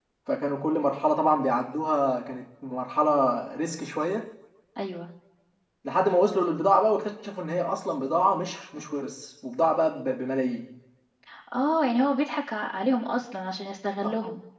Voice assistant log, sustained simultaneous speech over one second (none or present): none